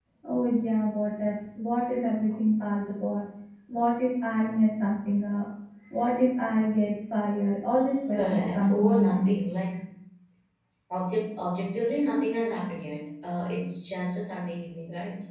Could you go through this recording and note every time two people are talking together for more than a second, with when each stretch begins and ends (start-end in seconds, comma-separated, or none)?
8.1-9.4